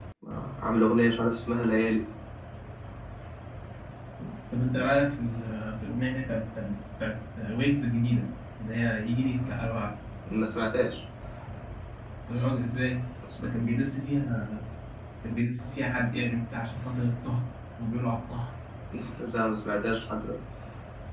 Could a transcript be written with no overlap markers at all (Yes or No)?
Yes